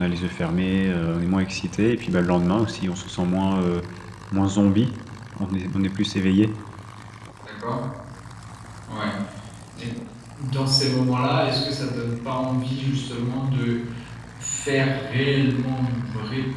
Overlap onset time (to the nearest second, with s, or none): none